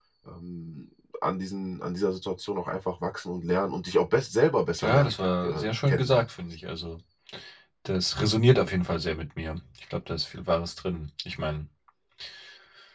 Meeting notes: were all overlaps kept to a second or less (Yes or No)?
No